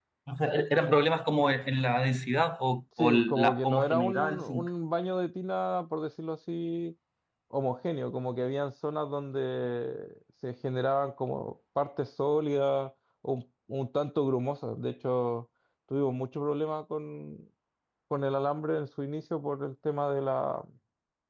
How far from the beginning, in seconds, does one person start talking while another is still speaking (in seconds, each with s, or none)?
3.0 s